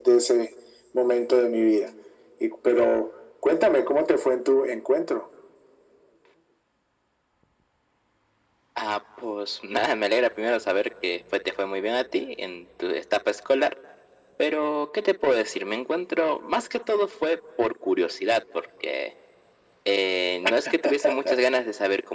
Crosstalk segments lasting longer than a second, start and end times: none

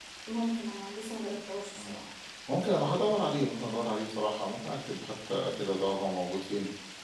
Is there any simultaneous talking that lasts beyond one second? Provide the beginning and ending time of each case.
none

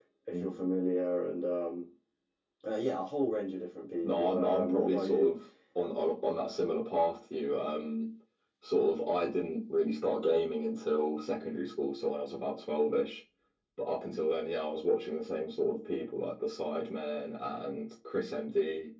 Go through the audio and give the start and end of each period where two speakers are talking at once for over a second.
4.0-5.3

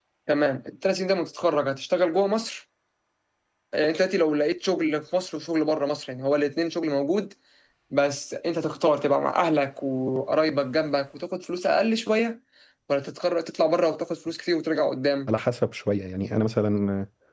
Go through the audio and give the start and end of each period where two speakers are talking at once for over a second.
none

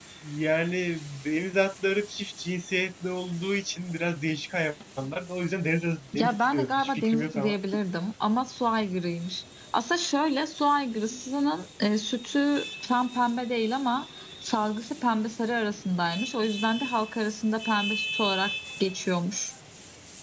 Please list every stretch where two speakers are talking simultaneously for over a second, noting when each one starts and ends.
6.2-7.6

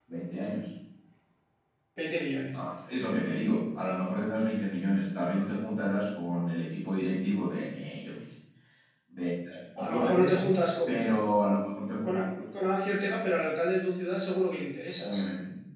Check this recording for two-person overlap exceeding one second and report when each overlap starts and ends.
none

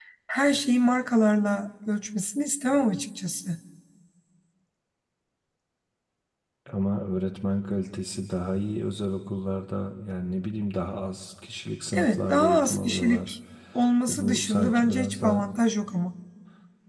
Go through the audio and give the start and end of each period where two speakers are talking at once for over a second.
11.9-13.3, 14.1-15.5

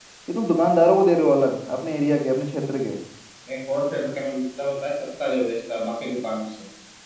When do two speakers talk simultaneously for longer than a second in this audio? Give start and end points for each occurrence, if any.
none

